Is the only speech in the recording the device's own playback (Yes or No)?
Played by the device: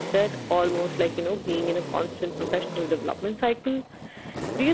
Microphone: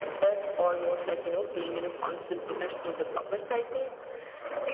Yes